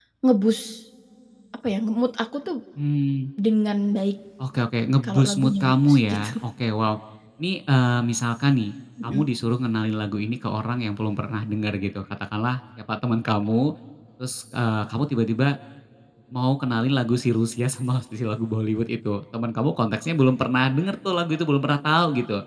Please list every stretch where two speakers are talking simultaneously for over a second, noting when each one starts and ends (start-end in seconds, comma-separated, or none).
5.0-6.4